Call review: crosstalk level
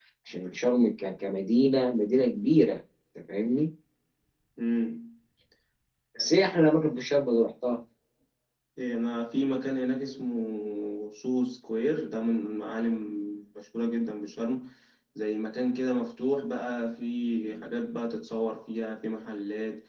none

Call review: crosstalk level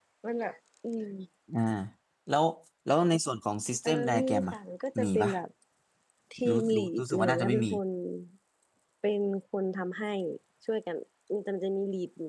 present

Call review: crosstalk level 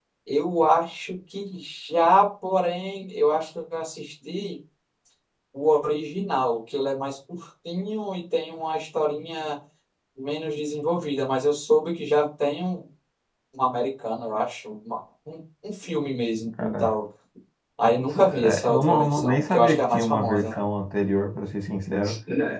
present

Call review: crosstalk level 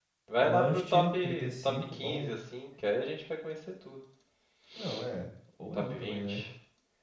present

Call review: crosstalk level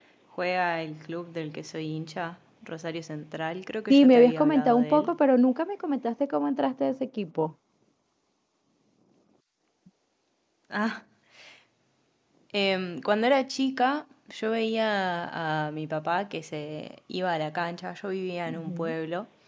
present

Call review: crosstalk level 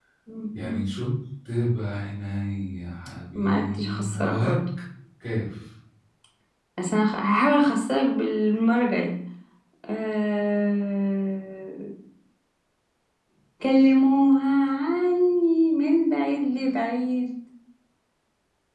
present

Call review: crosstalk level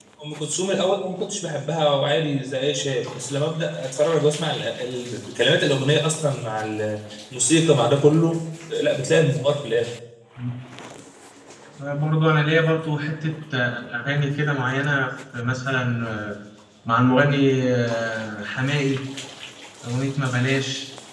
none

